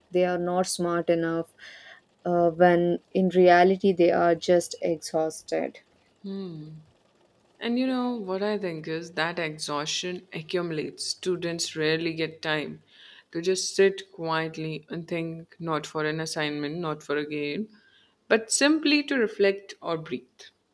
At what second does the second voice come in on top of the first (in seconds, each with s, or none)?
none